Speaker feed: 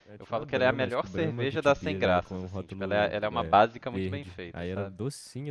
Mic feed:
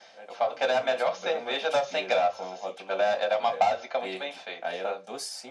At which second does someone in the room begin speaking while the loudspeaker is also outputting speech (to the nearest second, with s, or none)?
none